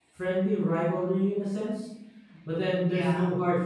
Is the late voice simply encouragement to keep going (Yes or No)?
Yes